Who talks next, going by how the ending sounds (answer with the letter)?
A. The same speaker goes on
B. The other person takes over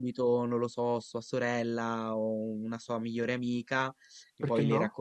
A